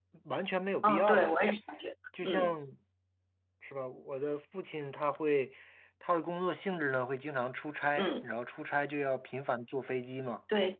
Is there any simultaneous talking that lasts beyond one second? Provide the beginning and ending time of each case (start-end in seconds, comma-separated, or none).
none